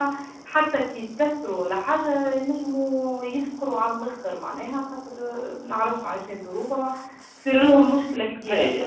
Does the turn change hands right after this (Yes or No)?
Yes